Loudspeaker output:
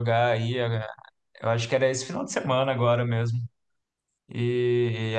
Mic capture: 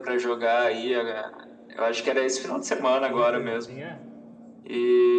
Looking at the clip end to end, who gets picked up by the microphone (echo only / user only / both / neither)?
both